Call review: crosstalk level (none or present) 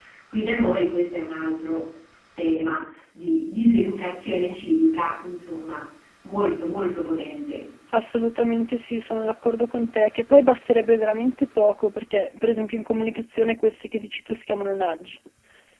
none